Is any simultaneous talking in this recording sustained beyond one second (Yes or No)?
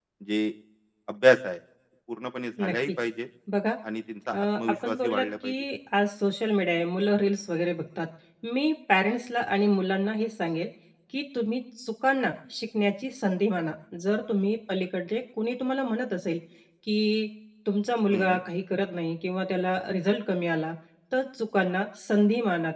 Yes